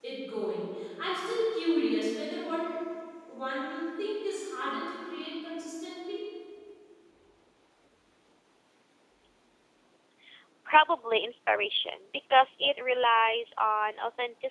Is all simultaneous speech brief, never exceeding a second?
Yes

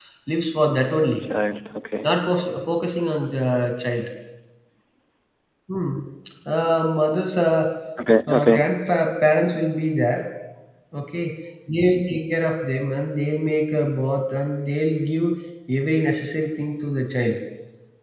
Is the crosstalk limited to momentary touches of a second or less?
Yes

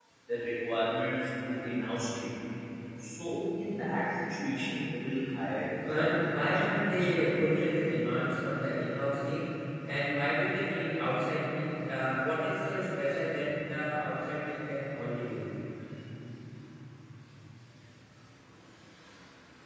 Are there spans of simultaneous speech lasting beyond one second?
Yes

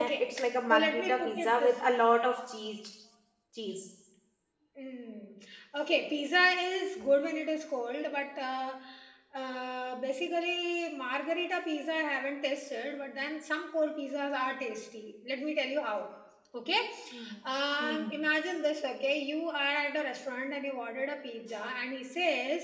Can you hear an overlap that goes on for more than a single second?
Yes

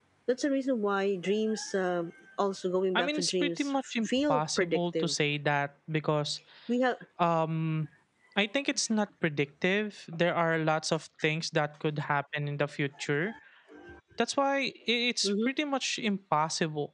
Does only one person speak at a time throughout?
No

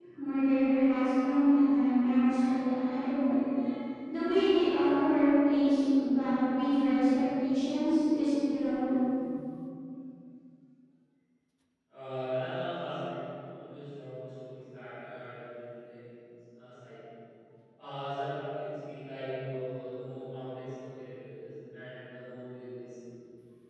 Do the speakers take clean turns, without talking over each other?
Yes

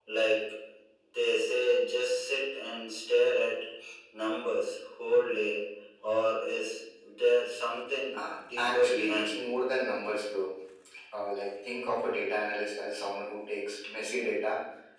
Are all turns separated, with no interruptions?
No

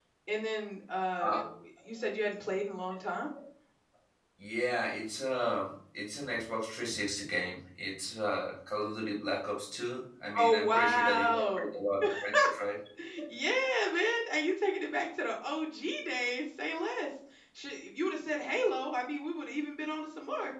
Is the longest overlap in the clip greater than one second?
Yes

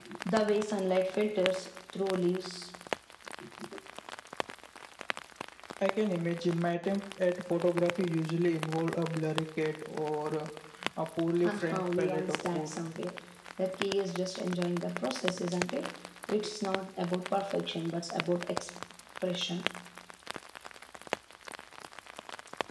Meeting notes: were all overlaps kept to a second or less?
No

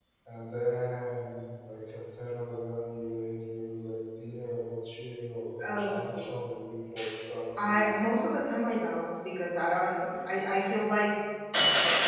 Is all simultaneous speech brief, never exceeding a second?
Yes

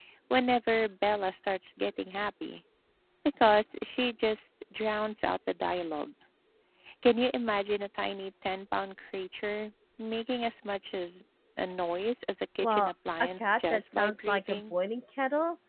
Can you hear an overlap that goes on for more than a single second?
Yes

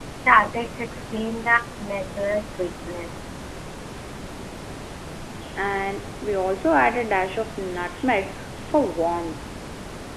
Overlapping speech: No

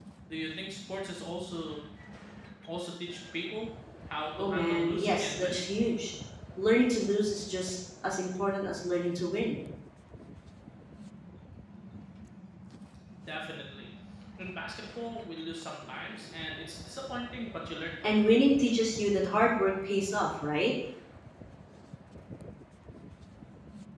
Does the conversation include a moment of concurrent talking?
Yes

